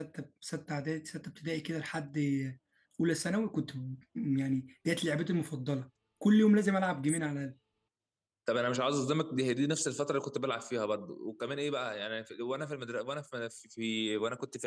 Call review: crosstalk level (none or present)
none